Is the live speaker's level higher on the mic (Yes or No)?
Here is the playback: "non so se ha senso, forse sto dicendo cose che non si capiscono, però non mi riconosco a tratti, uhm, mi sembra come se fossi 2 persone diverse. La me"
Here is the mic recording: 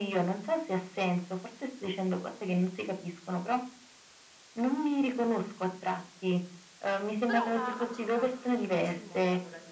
No